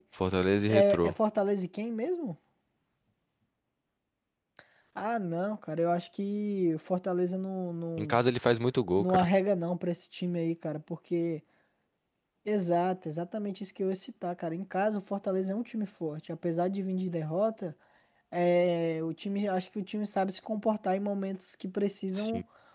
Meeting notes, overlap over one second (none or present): none